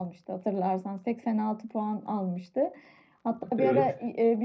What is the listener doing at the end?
listening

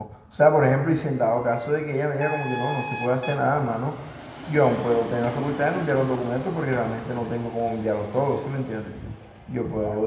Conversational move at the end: taking over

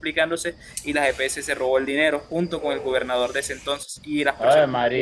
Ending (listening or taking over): listening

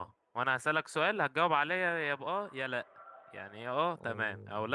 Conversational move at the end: listening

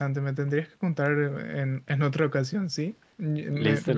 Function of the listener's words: listening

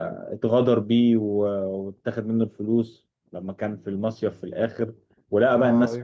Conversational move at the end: listening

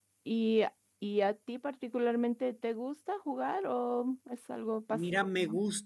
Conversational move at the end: taking over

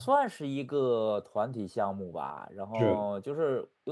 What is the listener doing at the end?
listening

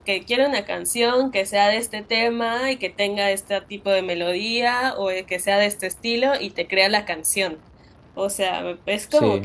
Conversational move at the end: listening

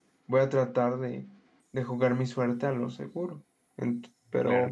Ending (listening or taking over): listening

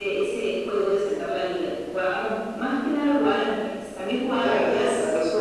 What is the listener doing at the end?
taking over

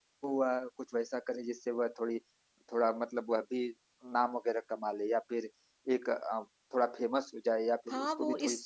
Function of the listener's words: taking over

